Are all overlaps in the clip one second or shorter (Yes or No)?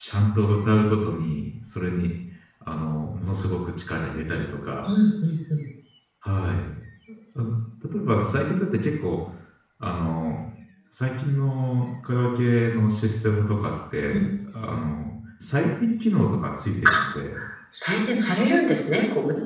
Yes